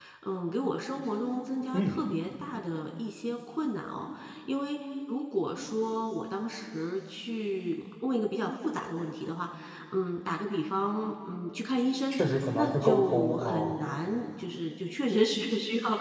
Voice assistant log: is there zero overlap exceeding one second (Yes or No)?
No